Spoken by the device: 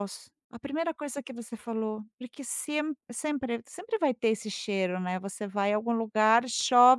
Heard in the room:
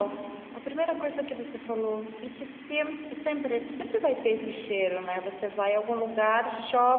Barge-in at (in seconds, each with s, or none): none